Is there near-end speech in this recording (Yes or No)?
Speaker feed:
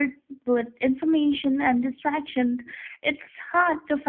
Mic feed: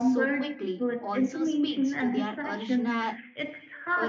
Yes